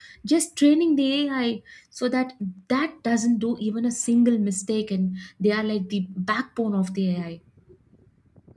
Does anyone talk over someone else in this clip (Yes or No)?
No